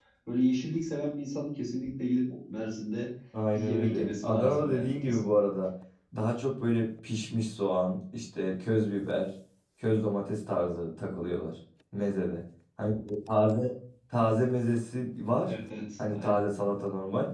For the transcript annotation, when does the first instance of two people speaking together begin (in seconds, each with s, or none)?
3.5 s